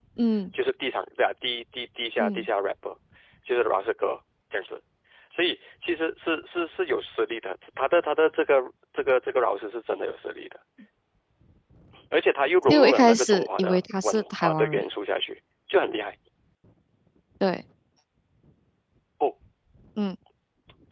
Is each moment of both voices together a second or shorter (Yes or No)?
No